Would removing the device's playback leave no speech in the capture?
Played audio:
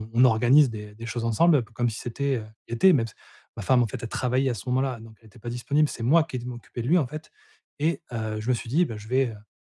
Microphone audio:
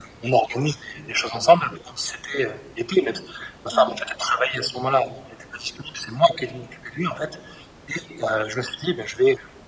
No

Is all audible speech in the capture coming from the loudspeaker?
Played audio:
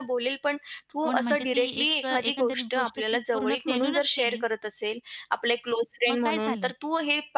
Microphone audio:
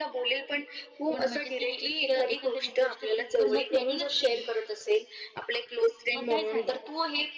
Yes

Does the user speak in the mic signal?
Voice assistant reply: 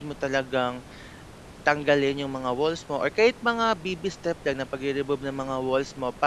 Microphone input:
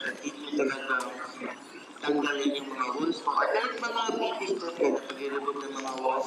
No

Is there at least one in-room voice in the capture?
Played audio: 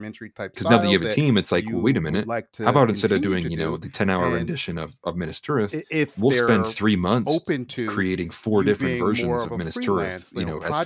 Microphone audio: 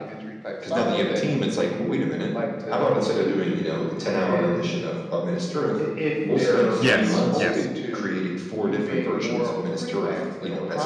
Yes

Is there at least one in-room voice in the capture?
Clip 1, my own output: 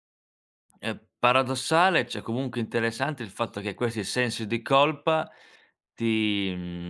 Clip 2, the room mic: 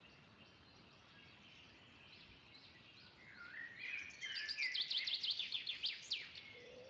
No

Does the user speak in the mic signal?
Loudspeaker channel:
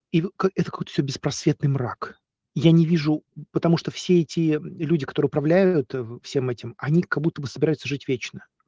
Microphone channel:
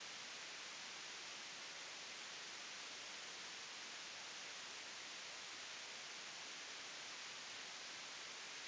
No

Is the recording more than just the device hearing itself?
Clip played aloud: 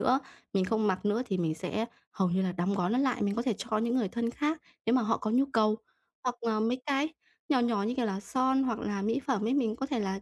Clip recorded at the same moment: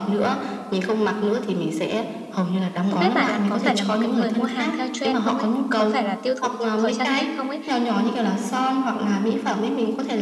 Yes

